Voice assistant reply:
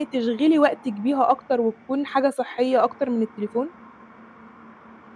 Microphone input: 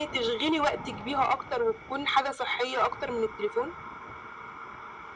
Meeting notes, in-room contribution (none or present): none